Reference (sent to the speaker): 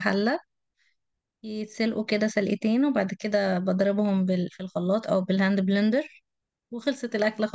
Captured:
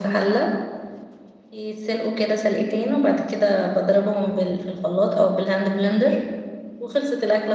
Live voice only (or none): none